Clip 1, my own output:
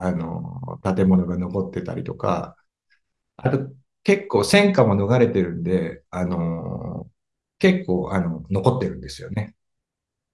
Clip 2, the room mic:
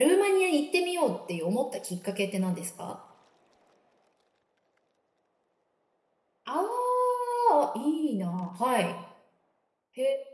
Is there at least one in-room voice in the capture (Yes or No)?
Yes